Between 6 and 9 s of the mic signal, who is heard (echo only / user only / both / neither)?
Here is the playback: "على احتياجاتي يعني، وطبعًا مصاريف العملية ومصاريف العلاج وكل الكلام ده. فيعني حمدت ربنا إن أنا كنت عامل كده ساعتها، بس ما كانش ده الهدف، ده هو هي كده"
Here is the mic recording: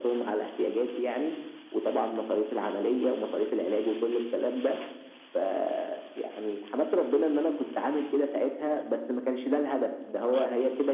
echo only